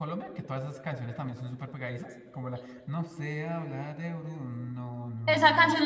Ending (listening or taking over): taking over